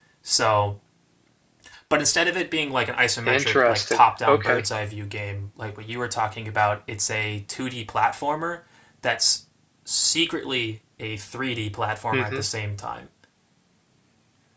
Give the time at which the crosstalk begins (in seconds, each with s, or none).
3.2 s